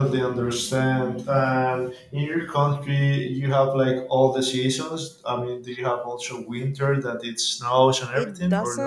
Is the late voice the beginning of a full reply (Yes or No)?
Yes